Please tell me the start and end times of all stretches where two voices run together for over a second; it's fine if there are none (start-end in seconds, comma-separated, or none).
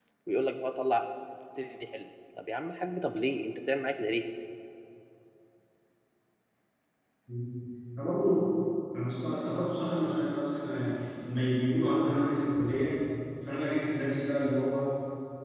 none